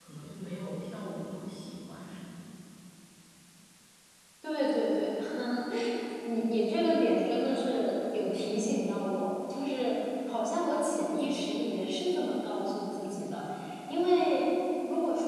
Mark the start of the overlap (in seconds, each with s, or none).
none